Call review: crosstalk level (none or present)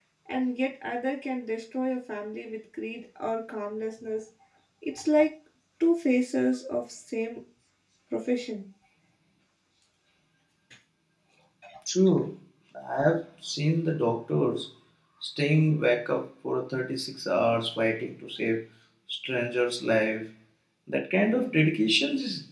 none